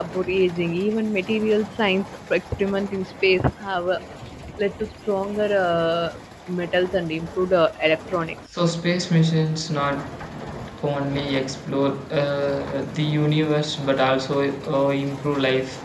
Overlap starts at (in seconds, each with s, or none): none